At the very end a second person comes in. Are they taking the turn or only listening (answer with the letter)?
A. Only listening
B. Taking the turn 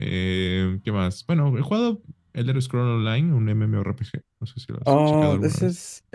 B